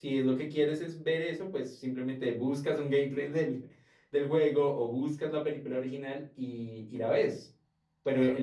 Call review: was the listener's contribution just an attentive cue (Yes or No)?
Yes